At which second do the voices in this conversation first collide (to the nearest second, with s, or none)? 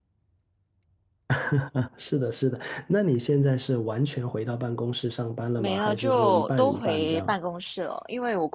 6 s